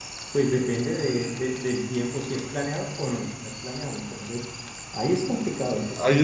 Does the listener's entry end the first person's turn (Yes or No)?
Yes